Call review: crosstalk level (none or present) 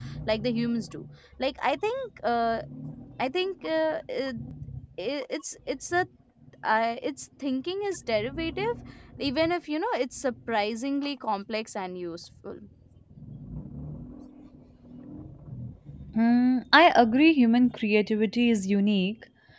none